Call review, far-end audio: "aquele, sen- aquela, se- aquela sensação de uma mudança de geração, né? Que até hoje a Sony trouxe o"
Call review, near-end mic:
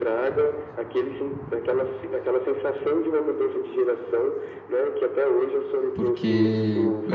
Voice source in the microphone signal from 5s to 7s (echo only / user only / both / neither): both